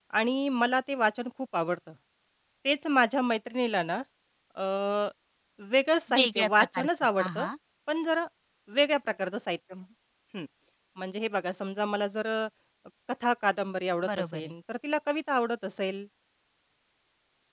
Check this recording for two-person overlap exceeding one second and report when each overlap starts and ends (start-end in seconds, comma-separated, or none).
6.2-7.5